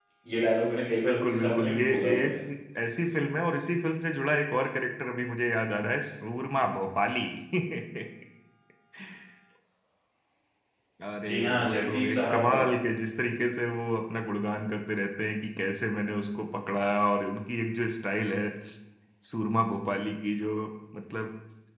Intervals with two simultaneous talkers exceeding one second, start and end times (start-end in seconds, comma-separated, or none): 1.0-2.4, 11.3-12.6